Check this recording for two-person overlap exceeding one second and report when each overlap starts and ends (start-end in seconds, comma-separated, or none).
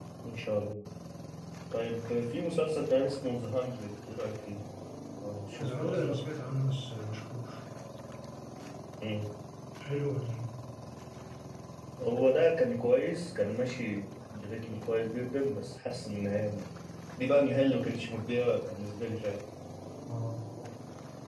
none